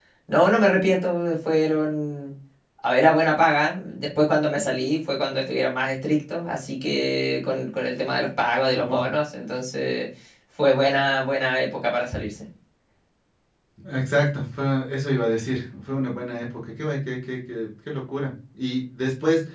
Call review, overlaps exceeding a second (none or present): none